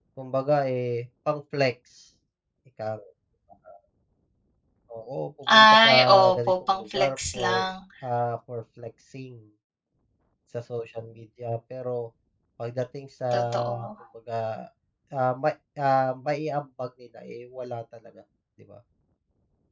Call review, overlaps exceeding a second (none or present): present